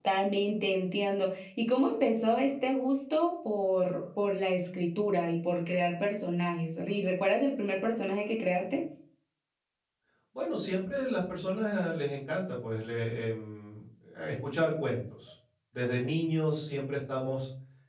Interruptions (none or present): none